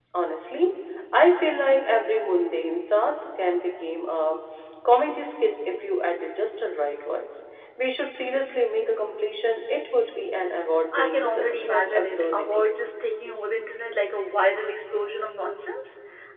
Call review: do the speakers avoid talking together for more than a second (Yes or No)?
No